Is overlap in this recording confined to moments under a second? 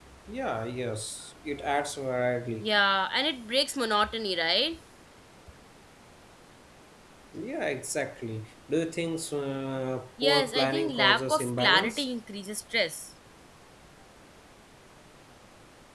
No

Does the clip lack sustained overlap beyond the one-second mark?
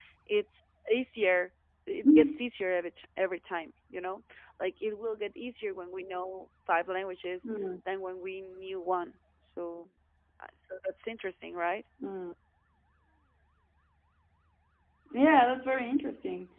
Yes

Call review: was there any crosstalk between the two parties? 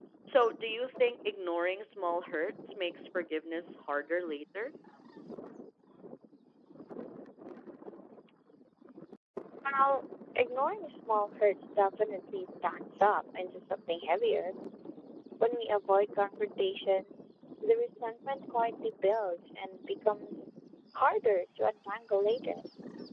No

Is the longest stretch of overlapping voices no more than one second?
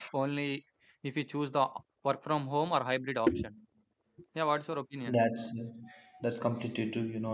Yes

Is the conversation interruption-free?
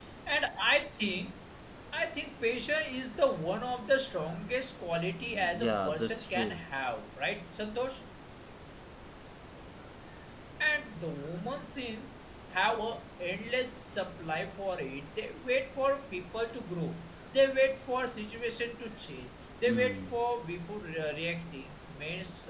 No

